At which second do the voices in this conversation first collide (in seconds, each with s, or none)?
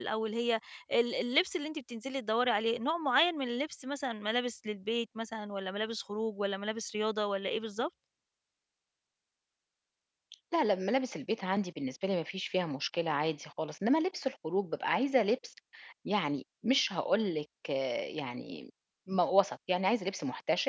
none